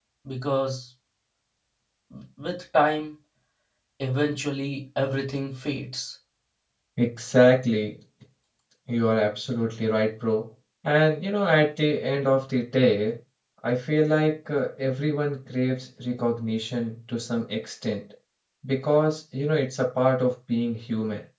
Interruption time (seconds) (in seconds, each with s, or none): none